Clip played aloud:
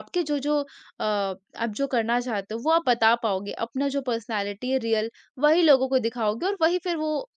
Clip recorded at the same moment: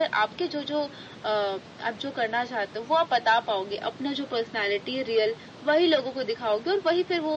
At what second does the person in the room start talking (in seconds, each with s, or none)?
none